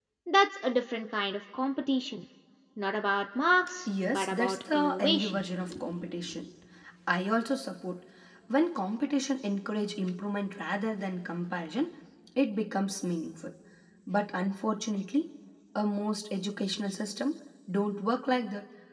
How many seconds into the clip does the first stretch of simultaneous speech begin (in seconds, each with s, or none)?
3.9 s